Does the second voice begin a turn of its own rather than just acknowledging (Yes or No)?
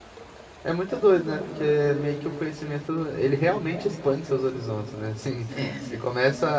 No